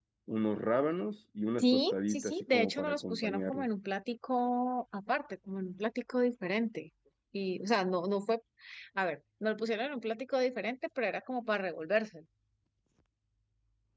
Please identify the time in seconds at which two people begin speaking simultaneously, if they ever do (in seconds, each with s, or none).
1.6 s